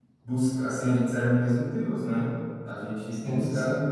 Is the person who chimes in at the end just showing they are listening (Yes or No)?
Yes